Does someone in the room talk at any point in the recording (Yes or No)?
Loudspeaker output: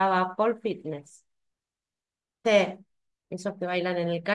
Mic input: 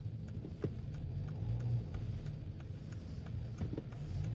No